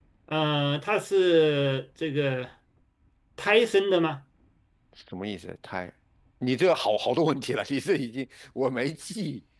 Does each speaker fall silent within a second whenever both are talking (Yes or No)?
Yes